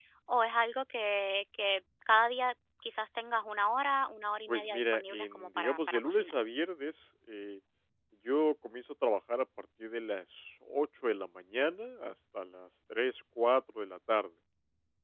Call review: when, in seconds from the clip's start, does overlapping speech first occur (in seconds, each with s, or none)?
4.5 s